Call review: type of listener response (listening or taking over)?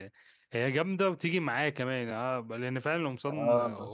listening